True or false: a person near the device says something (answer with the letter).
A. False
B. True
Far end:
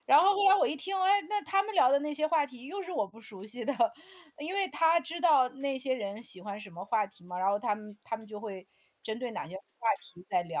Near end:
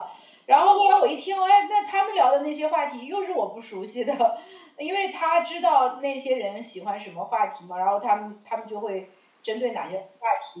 A